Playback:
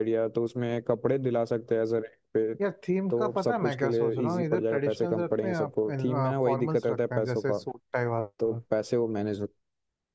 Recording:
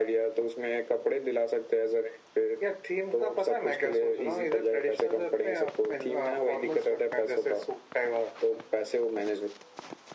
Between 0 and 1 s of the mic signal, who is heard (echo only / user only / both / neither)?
echo only